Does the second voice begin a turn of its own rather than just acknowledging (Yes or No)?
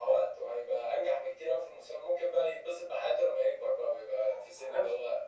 No